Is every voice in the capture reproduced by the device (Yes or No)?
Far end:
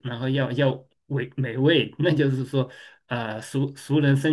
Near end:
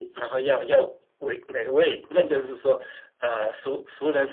Yes